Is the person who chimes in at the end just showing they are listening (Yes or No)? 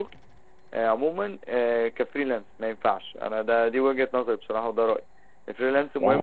Yes